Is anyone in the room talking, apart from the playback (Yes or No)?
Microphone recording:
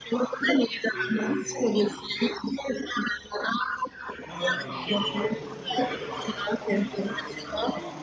Yes